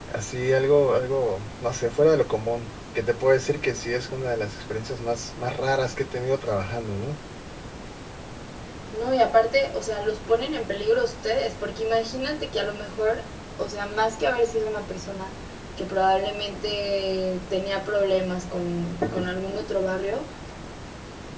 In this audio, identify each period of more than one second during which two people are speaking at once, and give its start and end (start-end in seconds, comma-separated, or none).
none